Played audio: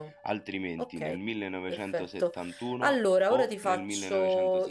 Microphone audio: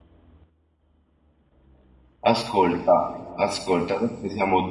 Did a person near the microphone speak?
Yes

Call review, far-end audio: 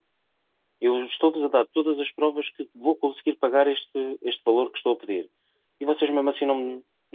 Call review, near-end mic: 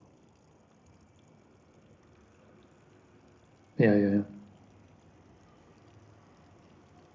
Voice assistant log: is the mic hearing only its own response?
No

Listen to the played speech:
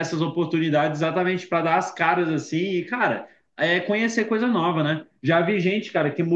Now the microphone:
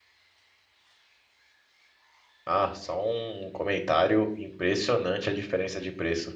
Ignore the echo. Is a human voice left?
Yes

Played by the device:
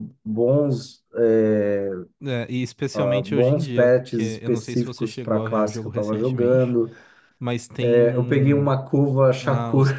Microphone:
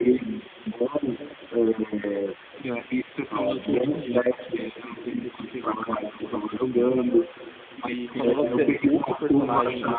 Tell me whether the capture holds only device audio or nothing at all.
No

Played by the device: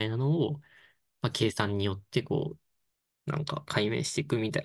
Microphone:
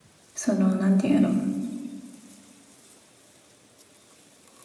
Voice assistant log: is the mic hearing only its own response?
No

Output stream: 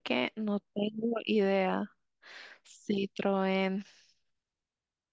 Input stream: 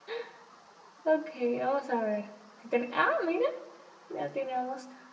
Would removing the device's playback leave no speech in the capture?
No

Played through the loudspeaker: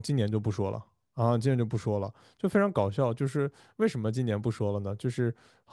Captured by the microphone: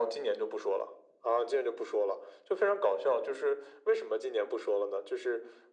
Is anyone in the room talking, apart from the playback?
No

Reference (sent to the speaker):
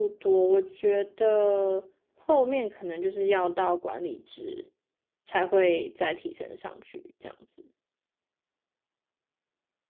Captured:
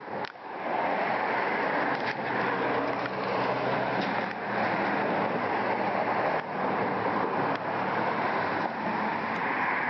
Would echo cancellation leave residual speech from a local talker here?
No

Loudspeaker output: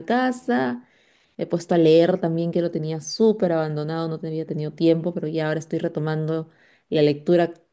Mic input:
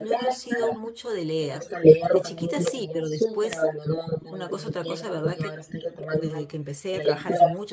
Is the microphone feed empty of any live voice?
No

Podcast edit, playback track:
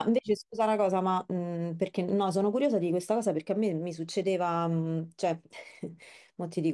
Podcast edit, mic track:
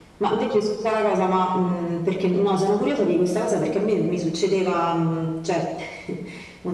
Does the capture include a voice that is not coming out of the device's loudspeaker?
No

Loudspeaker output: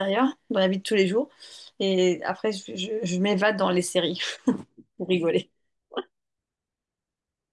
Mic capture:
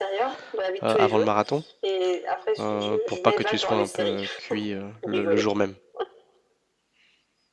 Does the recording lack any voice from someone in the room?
No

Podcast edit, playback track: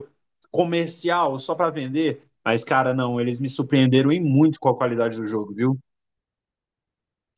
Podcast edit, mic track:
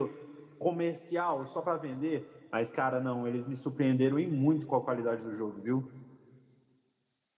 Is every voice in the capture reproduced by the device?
Yes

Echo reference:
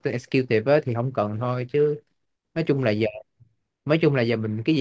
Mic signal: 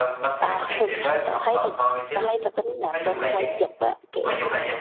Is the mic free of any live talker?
No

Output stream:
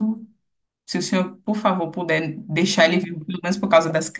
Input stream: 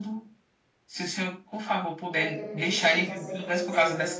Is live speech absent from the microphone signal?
No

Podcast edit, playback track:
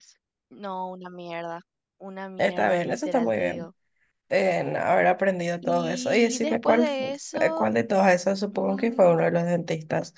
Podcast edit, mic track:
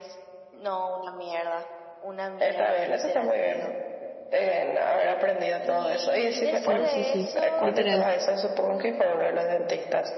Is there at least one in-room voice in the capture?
Yes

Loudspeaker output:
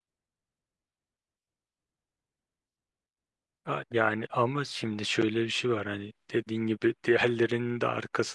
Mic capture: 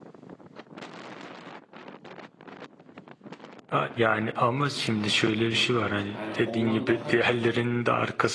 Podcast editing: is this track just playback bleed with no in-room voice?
No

